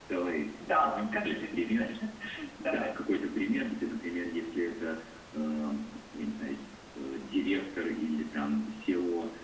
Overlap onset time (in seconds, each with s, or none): 0.7 s